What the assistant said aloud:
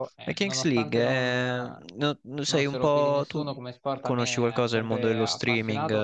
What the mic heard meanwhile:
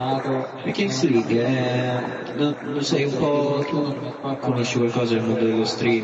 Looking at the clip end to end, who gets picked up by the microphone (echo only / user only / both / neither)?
echo only